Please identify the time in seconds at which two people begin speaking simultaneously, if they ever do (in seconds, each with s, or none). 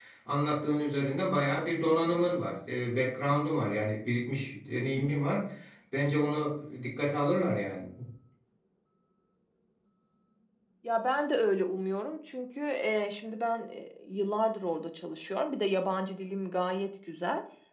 none